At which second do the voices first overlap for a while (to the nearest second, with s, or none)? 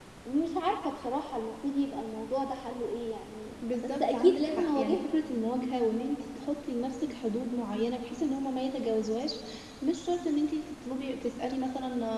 4 s